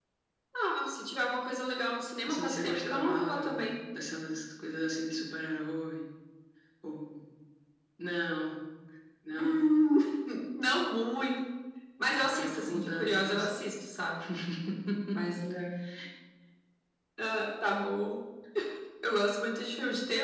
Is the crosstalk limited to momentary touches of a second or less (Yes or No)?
No